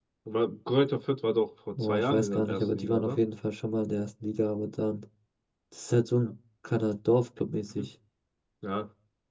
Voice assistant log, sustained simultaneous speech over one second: present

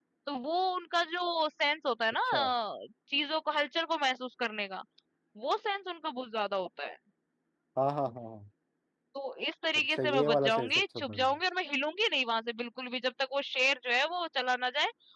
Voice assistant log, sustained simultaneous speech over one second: present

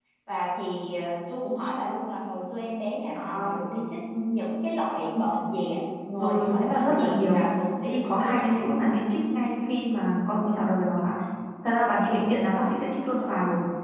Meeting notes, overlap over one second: present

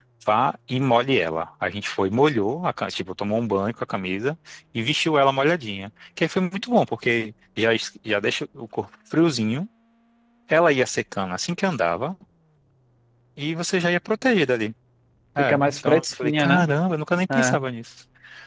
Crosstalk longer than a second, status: present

